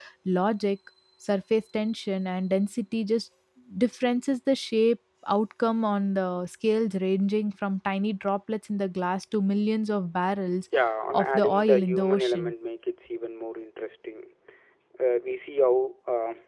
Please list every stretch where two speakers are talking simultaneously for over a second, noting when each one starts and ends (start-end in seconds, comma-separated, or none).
11.1-12.5